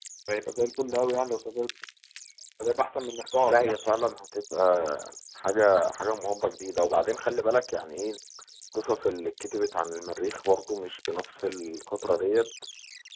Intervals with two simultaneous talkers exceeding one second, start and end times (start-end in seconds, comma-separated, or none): none